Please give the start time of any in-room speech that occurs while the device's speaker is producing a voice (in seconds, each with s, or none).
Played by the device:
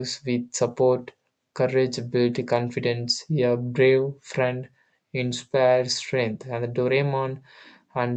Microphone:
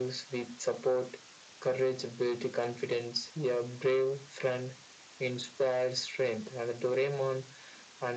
none